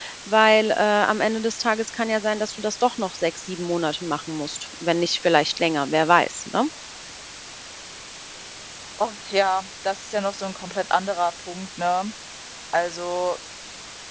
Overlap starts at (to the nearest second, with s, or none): none